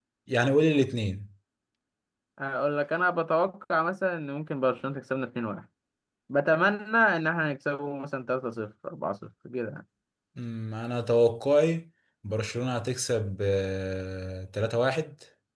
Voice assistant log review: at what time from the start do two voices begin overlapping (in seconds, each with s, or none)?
none